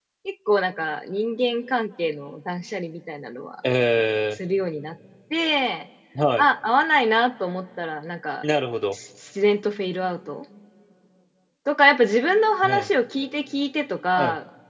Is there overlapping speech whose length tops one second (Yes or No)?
No